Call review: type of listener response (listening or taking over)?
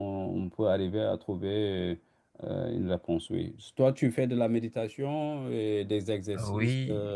taking over